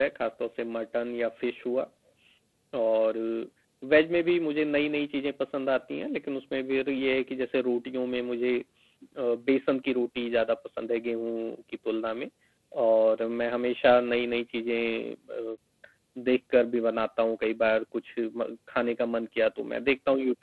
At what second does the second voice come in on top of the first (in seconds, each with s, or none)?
none